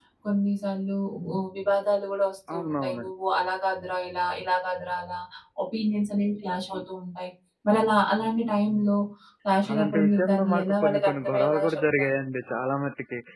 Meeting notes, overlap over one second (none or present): present